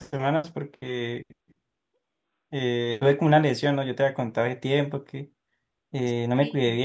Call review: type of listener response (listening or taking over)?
listening